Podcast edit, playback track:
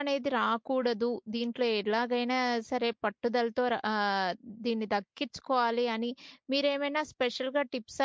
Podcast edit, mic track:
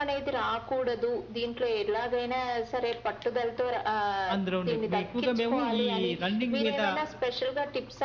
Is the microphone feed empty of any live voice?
No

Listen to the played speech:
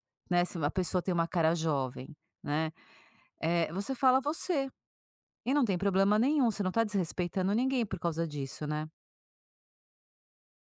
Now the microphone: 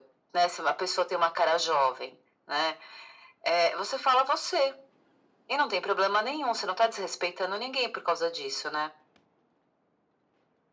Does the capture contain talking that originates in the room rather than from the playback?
No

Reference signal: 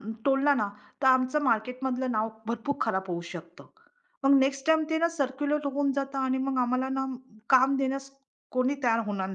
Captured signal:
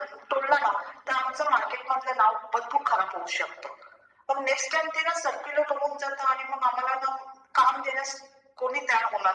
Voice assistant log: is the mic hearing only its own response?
Yes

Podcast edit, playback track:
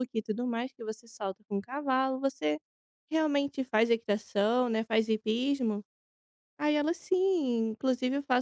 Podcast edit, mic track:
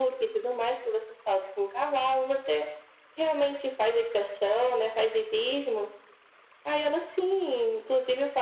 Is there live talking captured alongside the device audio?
No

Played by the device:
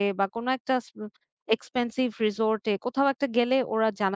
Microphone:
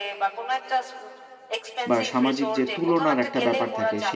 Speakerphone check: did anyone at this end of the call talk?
Yes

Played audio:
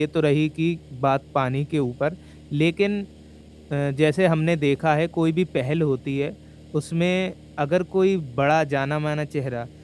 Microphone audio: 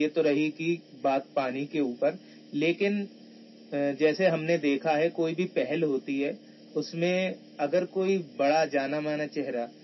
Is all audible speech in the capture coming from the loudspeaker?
Yes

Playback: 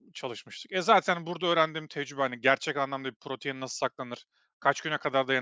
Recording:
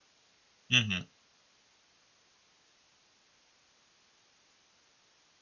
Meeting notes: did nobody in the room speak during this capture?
No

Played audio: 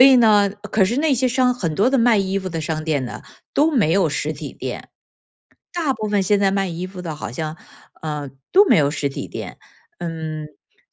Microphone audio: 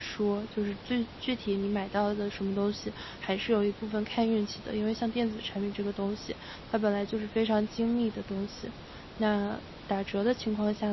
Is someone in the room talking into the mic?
Yes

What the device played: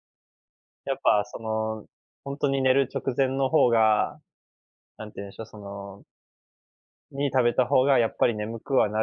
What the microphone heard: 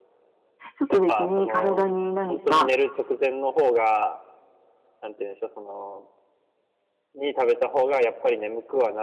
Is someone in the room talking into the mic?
Yes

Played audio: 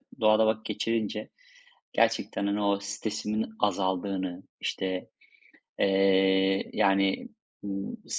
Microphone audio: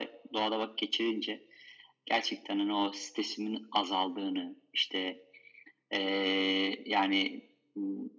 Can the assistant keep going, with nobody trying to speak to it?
Yes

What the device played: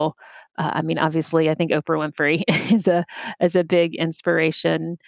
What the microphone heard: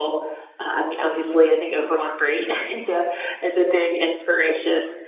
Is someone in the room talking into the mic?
No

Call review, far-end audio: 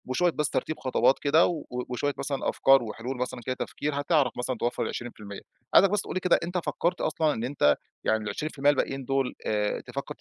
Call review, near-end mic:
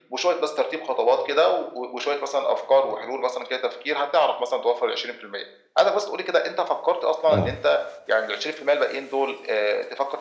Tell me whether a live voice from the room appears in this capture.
Yes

